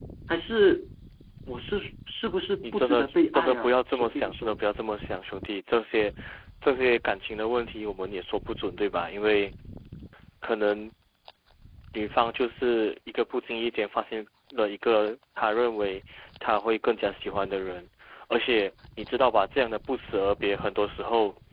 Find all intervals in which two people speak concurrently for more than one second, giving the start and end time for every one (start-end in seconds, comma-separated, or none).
2.6-4.5